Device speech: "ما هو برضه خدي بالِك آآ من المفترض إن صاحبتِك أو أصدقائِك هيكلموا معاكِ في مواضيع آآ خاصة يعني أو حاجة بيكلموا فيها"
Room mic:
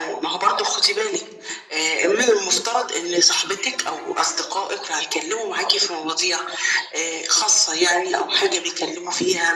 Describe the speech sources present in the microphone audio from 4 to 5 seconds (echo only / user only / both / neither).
echo only